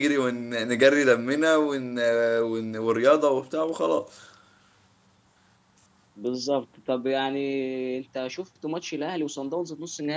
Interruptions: none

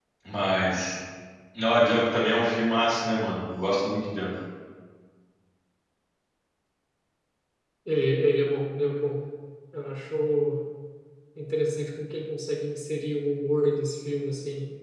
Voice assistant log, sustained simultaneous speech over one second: none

